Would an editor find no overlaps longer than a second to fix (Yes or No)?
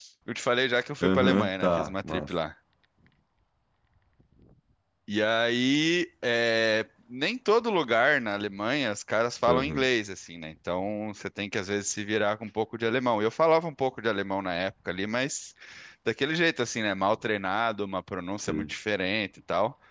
No